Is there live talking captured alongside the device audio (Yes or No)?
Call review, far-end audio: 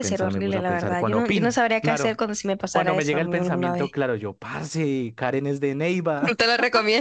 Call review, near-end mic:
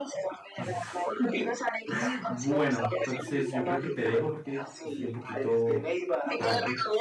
Yes